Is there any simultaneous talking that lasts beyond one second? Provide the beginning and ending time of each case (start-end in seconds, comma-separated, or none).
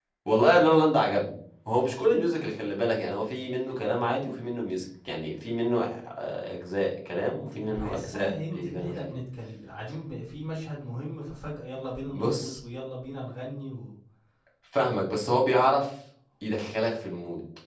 7.6-9.1